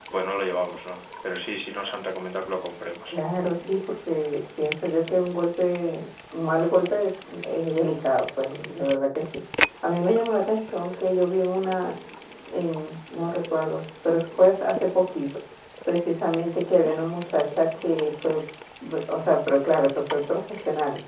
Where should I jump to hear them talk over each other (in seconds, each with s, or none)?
none